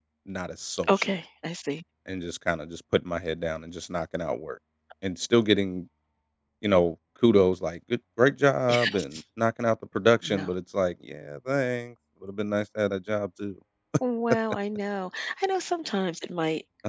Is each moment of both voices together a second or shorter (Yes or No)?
Yes